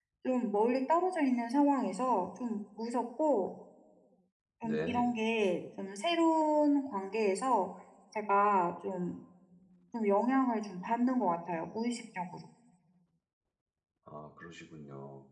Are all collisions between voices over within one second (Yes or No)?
Yes